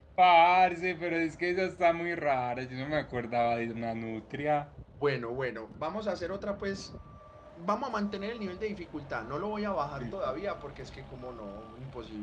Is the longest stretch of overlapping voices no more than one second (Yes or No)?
Yes